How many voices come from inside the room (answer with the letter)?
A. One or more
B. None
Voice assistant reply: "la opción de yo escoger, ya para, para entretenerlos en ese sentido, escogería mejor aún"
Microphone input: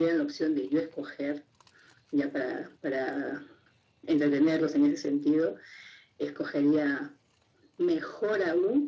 B